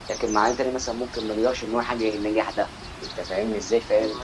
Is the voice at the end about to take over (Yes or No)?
No